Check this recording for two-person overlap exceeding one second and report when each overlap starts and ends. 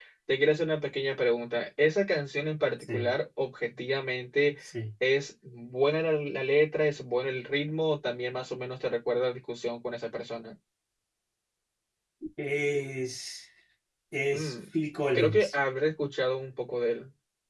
none

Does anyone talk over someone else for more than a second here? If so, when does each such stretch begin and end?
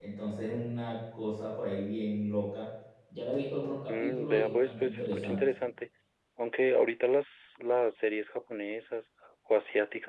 3.9-5.4

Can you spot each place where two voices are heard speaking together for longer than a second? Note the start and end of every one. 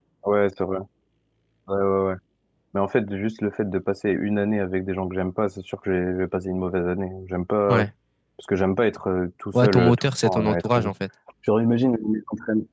9.6-10.8

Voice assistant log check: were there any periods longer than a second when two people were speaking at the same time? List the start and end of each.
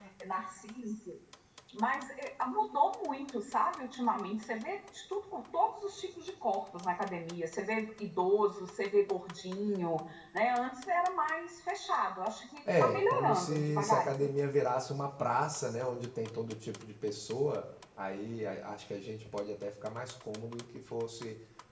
12.8-14.3

